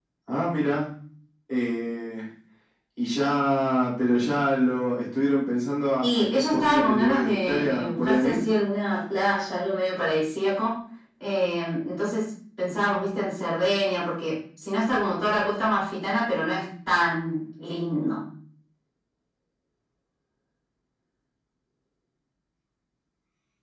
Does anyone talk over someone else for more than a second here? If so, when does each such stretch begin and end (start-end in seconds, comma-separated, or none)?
6.0-8.4